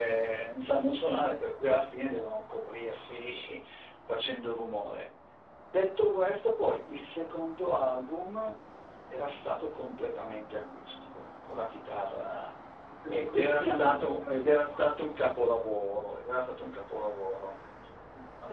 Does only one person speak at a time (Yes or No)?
No